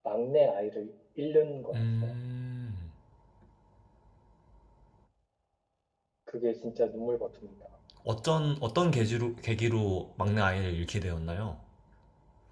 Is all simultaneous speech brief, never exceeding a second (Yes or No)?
Yes